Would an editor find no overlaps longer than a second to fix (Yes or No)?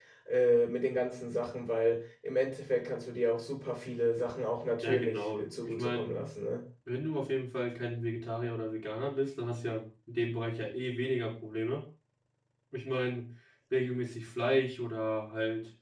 No